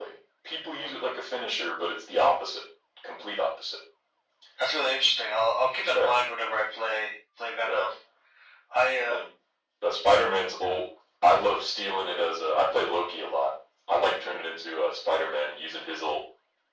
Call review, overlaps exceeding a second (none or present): none